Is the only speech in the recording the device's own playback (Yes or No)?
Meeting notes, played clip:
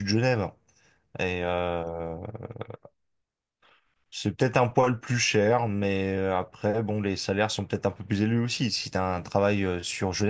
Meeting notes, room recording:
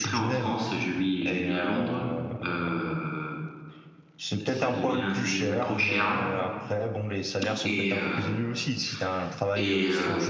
No